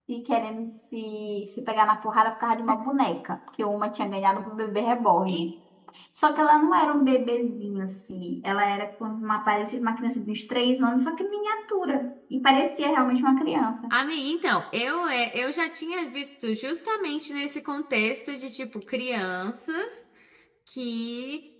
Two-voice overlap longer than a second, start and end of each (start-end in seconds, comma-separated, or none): none